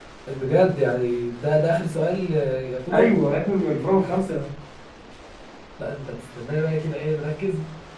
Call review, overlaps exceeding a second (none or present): none